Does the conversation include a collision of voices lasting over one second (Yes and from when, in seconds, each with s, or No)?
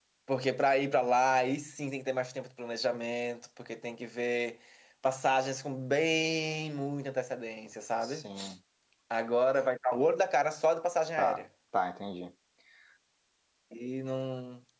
No